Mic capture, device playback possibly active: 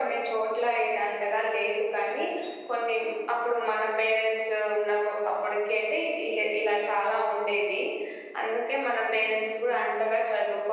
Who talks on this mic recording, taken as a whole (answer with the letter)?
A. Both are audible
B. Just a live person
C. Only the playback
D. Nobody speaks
C